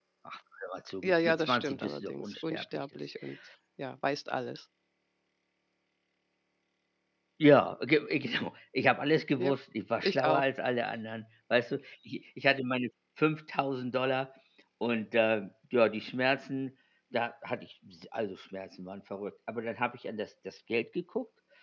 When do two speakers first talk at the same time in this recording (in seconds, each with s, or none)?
1.0 s